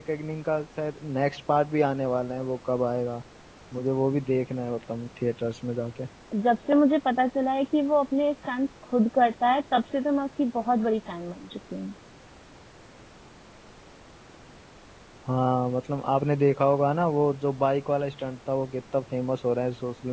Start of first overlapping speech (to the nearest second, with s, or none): none